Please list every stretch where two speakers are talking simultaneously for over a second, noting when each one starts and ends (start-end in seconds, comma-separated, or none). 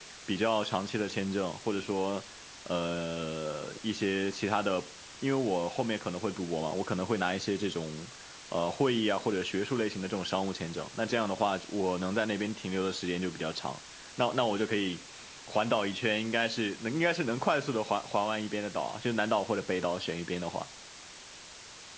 none